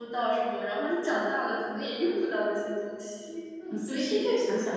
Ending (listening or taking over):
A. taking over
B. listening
A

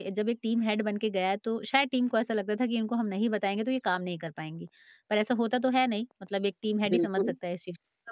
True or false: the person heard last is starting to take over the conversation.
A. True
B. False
B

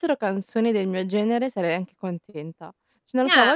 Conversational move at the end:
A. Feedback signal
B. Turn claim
A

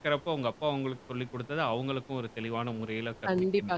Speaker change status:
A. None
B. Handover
B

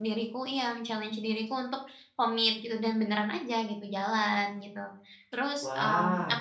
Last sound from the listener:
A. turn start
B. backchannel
B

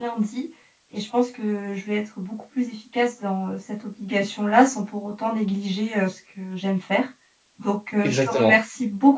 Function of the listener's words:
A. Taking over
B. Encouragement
B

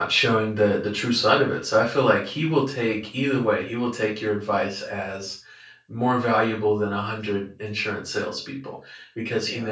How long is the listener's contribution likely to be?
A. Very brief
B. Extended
A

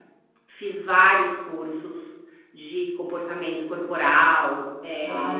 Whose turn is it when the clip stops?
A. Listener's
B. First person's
A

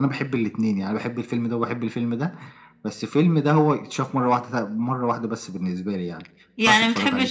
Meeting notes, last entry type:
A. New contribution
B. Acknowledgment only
A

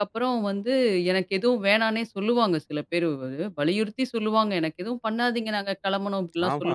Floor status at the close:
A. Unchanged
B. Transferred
B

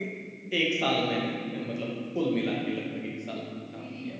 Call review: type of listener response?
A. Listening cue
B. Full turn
B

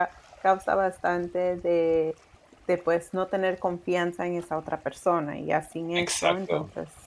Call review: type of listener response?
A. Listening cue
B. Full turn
A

